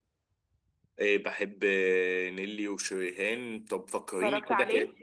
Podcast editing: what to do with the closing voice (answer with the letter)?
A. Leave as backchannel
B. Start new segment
A